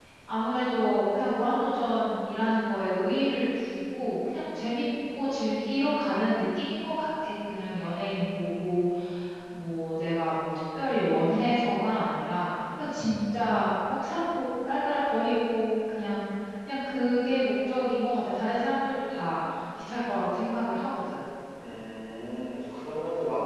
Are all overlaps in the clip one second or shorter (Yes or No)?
Yes